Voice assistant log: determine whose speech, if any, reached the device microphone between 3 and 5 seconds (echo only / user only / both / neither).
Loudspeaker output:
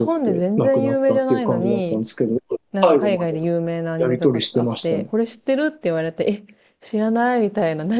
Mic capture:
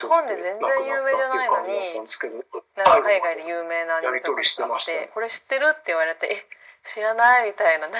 echo only